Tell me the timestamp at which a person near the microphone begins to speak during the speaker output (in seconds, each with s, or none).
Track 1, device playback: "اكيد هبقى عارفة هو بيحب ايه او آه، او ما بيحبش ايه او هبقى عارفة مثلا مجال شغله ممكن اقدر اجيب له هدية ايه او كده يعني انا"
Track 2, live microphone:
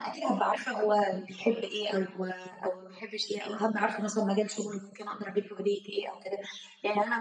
none